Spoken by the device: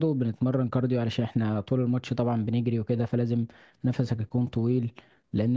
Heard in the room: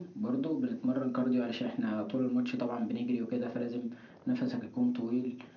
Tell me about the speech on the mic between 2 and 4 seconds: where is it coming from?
echo only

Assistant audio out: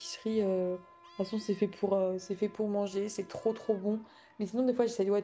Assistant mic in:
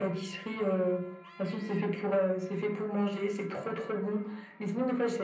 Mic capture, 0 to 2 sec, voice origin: echo only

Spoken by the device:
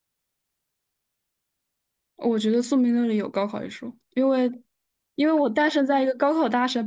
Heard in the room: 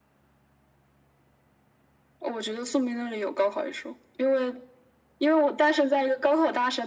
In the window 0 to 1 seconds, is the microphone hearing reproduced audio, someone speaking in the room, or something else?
neither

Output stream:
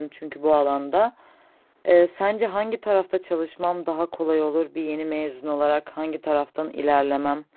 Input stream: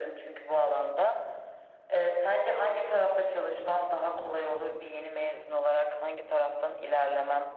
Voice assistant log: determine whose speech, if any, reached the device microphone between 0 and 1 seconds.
echo only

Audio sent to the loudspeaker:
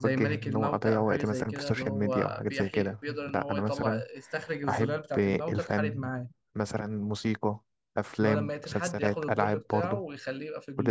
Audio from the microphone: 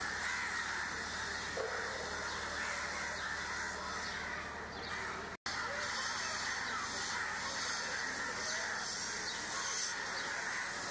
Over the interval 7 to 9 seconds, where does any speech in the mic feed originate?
neither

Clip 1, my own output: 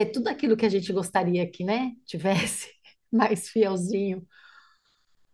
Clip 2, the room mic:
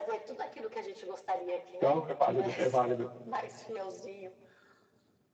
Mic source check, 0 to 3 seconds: both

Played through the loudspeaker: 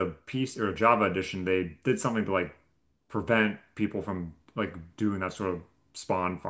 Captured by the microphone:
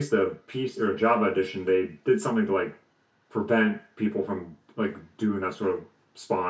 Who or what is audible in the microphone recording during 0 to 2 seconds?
echo only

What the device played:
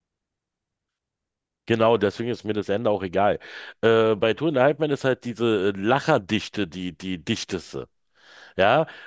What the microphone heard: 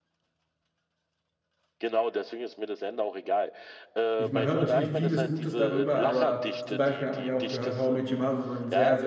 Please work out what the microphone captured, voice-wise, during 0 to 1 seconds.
neither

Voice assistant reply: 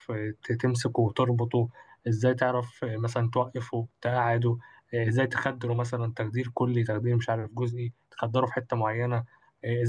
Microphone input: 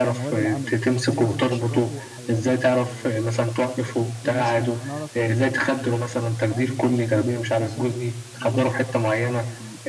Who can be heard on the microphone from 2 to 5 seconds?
both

